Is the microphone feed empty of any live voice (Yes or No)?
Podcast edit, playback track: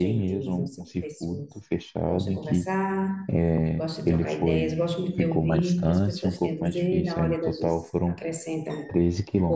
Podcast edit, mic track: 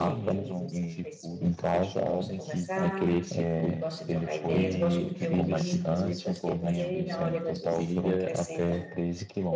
No